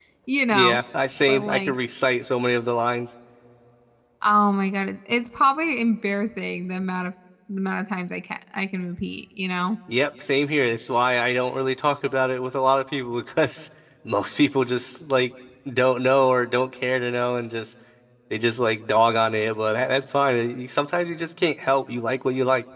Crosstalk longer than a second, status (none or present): none